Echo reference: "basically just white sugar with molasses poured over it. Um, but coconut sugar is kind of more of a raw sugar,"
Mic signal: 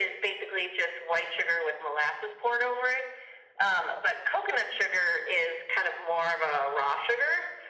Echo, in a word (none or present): present